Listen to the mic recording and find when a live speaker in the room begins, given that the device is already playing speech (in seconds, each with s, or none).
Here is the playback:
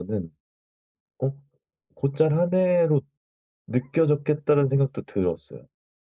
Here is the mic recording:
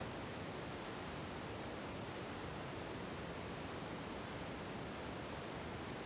none